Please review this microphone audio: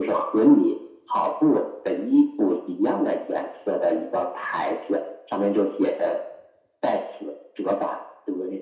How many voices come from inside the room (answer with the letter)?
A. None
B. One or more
A